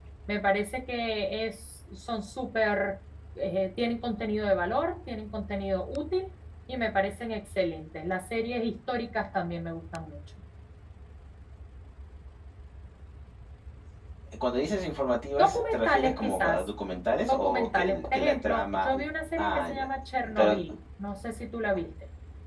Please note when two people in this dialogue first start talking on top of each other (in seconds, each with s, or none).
15.4 s